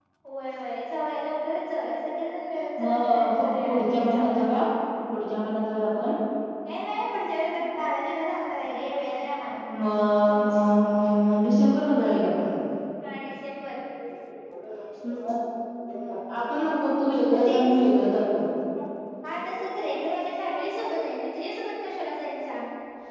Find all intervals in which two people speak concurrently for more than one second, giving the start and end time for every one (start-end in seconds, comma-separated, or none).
2.8-4.3